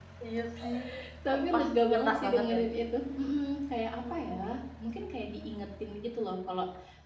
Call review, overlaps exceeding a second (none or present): present